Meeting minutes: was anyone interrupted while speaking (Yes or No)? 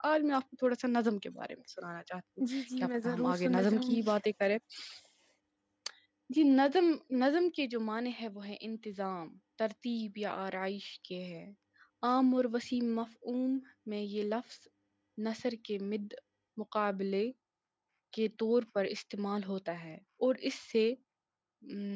Yes